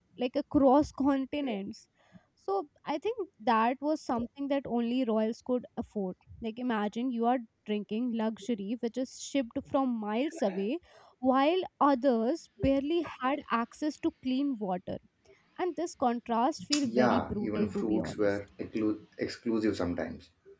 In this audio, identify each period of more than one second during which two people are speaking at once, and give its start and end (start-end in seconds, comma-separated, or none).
16.8-18.3